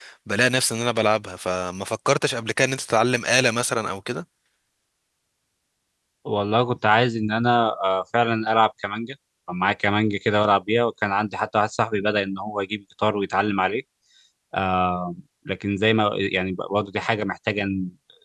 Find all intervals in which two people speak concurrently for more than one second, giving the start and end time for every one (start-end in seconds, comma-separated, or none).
none